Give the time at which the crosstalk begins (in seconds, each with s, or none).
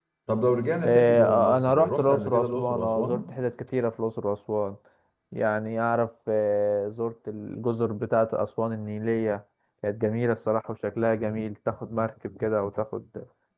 0.8 s